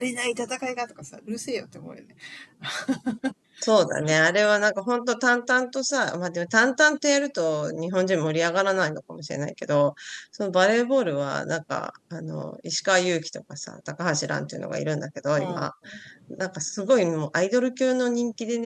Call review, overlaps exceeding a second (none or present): none